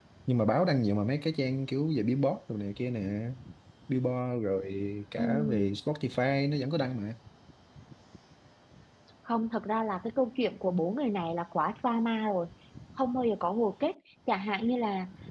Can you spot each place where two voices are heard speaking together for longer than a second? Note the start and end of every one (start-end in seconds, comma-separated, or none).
none